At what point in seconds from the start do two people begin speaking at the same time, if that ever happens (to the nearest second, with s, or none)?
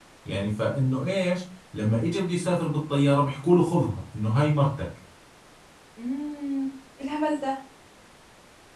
none